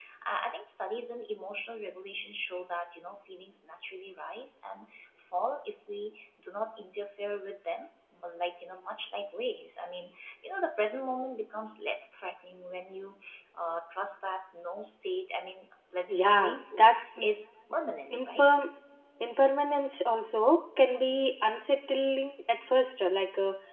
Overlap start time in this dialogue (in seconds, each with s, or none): 16.1 s